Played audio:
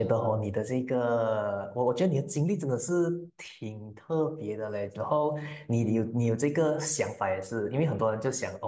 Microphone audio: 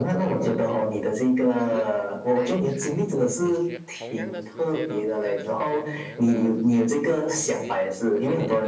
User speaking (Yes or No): Yes